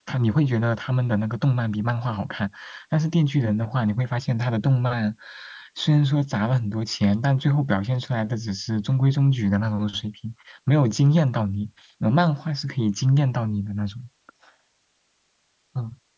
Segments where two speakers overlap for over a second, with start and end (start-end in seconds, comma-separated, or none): none